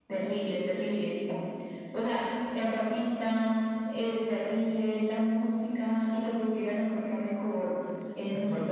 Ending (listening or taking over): taking over